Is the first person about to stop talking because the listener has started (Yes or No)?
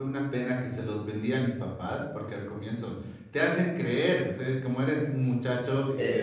No